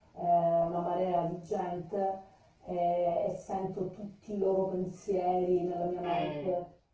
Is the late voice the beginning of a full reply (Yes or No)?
No